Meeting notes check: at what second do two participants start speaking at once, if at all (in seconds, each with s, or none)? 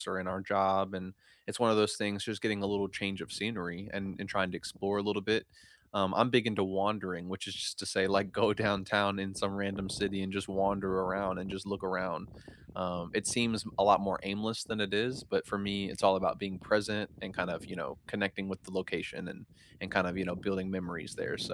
none